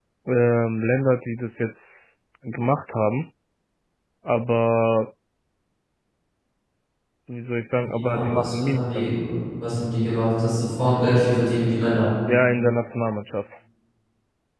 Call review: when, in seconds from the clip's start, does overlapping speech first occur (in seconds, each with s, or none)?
7.8 s